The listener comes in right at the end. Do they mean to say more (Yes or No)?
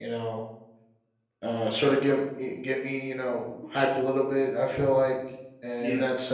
No